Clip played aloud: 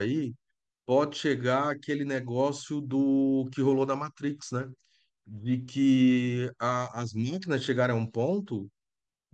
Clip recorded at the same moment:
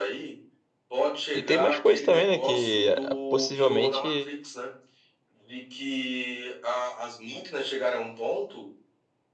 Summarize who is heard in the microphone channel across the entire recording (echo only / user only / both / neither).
both